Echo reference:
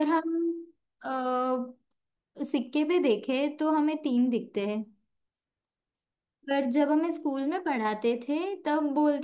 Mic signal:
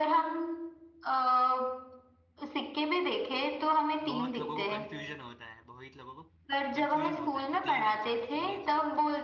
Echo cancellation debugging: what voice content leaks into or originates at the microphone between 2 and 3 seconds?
echo only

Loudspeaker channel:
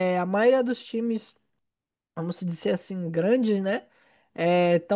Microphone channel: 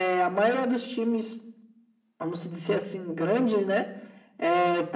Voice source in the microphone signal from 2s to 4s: echo only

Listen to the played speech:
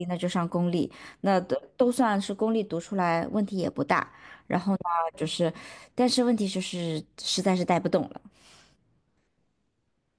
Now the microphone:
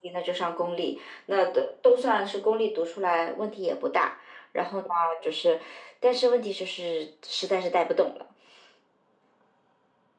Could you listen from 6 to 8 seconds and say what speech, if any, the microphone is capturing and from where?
echo only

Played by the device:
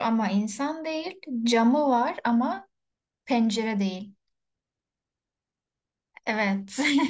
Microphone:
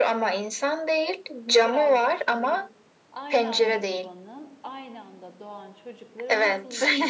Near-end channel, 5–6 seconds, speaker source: user only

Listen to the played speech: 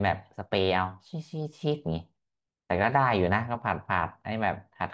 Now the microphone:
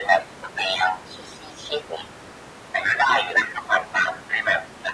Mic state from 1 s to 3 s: echo only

